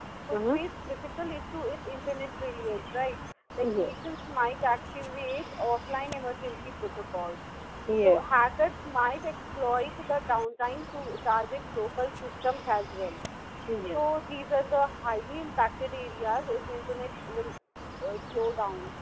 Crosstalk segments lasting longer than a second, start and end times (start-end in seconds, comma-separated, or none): none